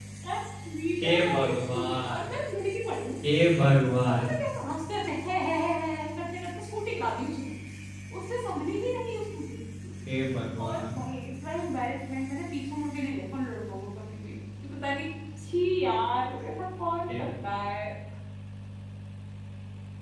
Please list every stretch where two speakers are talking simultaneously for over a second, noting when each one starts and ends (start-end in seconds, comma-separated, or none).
1.0-2.3